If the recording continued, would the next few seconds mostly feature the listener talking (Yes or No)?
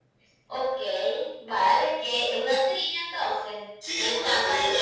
Yes